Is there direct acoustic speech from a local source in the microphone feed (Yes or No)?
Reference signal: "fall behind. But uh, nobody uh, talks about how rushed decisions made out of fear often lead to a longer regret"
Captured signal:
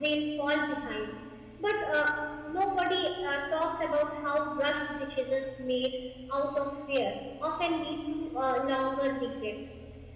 No